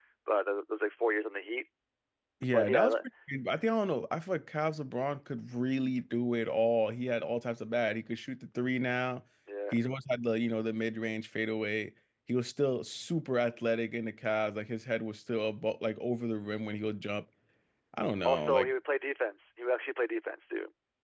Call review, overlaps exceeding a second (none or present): none